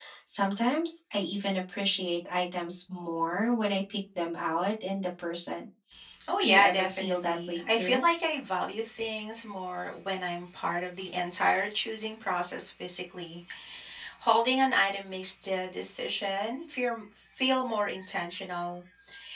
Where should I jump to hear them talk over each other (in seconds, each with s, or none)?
6.4 s